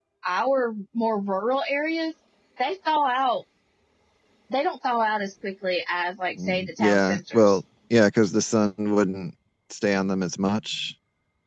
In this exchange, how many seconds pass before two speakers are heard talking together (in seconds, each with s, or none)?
6.4 s